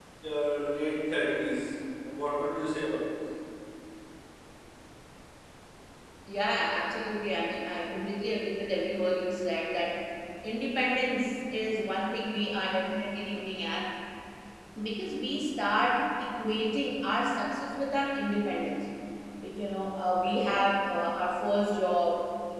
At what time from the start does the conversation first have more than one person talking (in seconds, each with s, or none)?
none